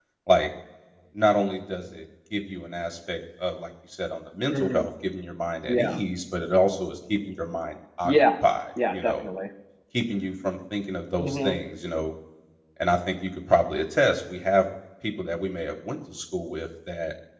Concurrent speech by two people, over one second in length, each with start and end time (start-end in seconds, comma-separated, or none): none